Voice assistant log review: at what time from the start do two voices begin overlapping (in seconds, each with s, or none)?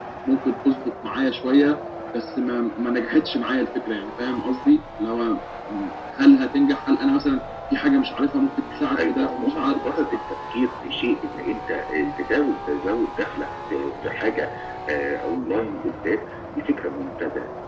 8.7 s